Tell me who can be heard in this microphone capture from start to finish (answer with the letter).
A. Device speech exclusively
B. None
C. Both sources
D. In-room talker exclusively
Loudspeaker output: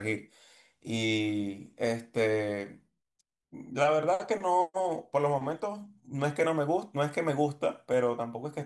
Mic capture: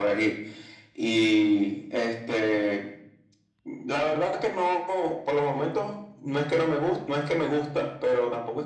A